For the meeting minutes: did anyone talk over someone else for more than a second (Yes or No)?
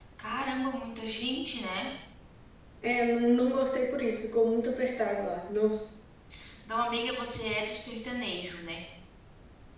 No